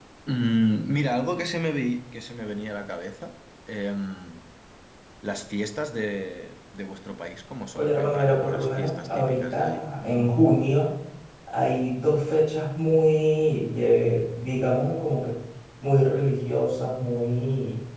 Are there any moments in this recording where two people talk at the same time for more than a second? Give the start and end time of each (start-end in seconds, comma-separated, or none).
7.8-9.8